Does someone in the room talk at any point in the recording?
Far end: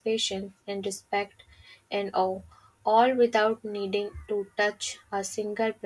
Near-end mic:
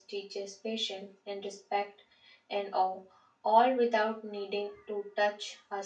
No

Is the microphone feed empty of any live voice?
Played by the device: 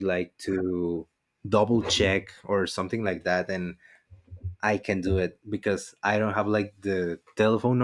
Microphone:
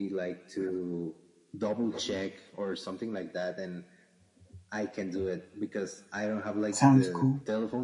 No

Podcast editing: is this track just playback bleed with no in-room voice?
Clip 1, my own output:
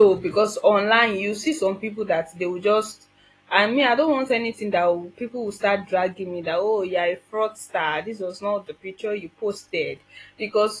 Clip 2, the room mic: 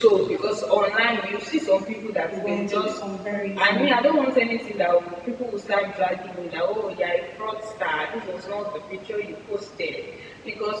No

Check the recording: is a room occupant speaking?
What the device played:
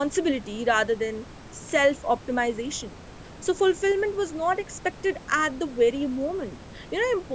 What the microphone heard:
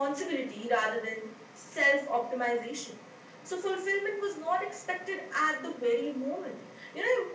No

